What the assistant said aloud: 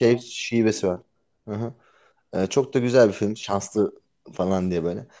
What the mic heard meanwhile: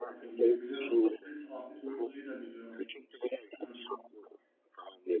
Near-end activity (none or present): present